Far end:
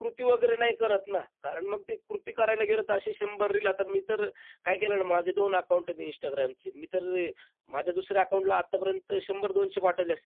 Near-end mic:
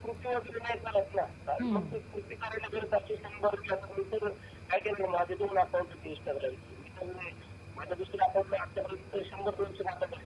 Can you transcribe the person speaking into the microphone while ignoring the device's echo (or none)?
हं.